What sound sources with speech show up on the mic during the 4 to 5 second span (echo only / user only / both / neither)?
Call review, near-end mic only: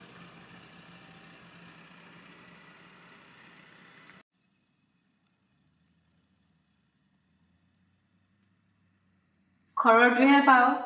neither